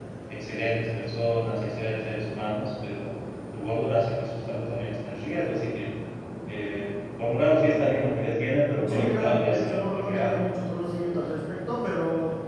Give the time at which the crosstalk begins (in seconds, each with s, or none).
8.9 s